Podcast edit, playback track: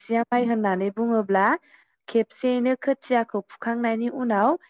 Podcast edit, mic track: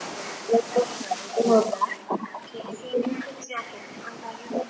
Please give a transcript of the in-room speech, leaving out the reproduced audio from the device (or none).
none